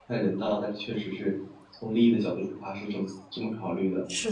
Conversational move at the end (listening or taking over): taking over